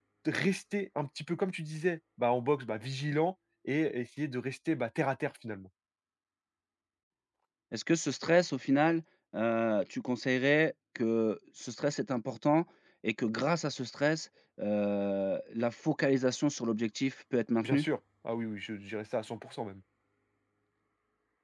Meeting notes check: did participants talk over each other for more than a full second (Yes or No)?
No